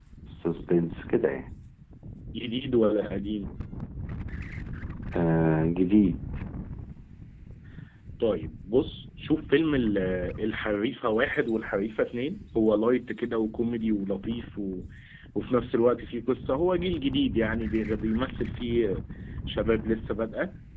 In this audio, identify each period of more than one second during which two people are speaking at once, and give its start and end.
none

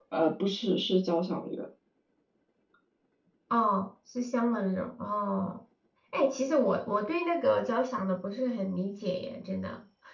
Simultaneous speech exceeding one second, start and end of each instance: none

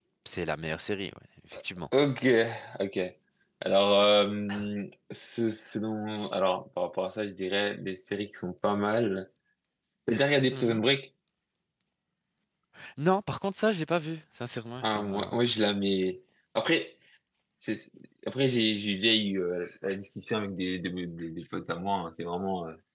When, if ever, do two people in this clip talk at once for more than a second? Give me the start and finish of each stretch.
none

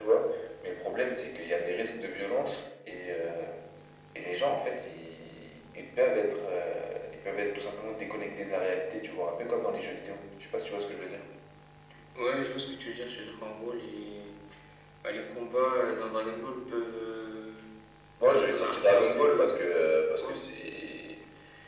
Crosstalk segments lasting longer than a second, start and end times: 18.3-19.5

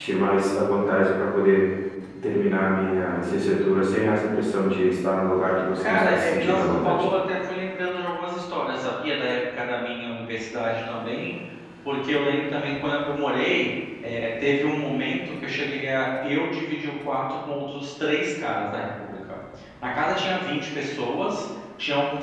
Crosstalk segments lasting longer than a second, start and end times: 5.8-7.0

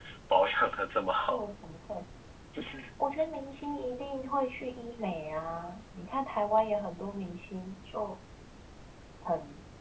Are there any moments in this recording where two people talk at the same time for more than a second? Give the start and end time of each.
none

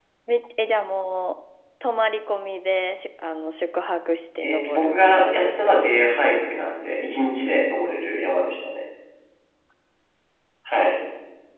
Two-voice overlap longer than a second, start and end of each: 4.4-5.8

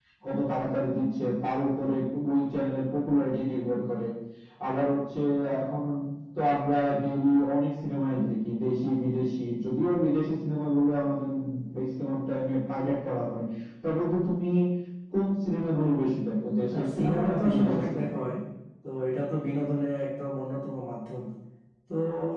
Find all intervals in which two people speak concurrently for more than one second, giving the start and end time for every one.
16.7-18.2

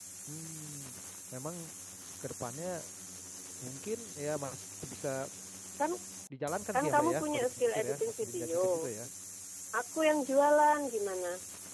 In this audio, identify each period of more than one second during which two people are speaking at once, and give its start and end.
6.7-8.9

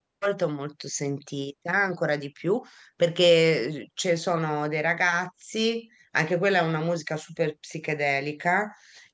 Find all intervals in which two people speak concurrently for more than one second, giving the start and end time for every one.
none

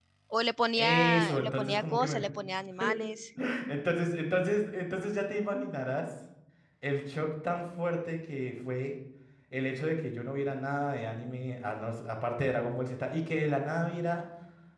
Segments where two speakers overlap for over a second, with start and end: 0.8-2.3

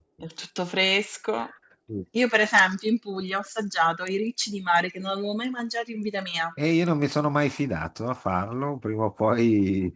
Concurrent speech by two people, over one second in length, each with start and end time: none

